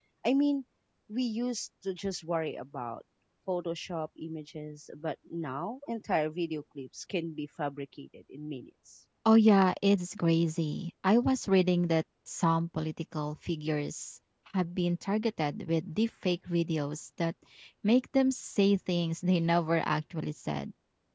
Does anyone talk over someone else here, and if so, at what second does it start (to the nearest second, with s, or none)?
none